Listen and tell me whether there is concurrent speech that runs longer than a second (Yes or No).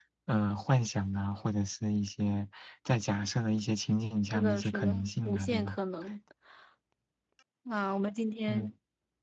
Yes